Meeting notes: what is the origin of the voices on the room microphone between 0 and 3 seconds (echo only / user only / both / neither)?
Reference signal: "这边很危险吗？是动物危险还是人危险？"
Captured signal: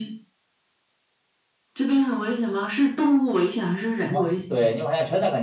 echo only